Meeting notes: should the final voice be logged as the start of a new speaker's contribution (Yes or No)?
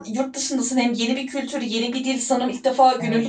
No